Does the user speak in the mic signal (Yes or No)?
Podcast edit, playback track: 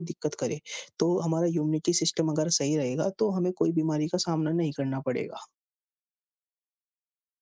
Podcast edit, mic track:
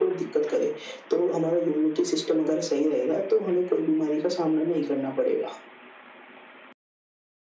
No